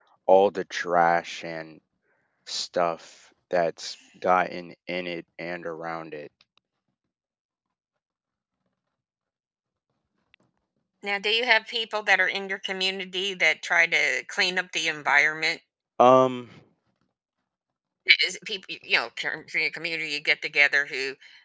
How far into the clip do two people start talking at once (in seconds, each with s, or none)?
none